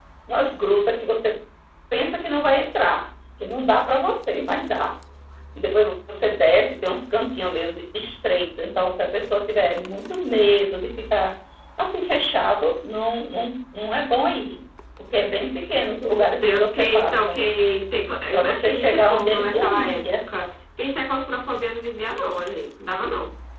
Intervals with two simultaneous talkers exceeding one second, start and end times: 16.0-17.4, 18.3-20.2

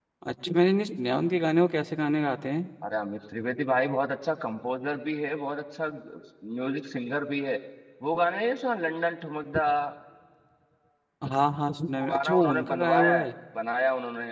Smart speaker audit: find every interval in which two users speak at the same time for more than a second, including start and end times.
12.0-13.3

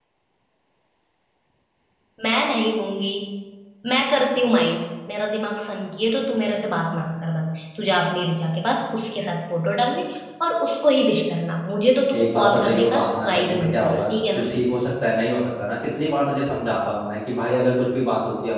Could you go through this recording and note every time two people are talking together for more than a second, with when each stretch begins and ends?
12.1-14.5

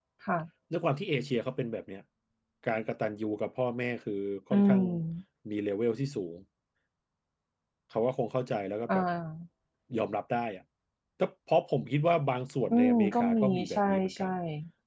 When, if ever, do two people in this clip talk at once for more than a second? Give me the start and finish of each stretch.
12.7-14.3

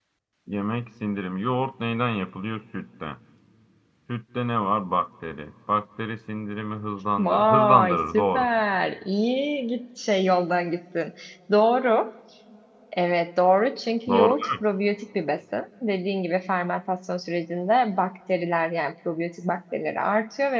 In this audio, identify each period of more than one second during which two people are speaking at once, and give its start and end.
7.2-8.5

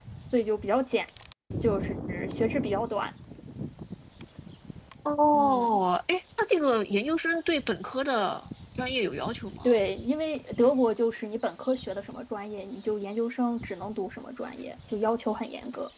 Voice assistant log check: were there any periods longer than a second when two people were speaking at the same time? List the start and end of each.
none

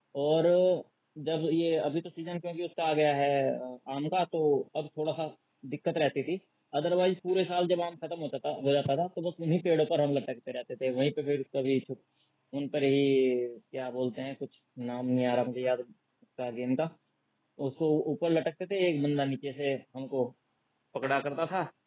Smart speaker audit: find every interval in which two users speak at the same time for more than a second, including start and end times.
none

